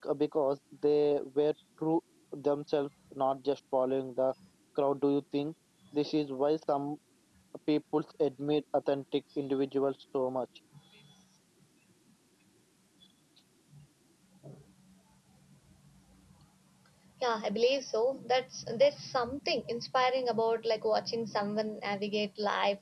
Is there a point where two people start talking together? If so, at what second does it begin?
none

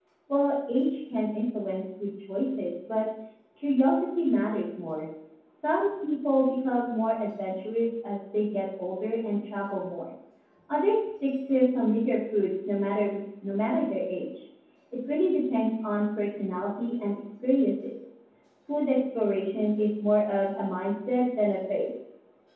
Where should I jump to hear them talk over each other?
none

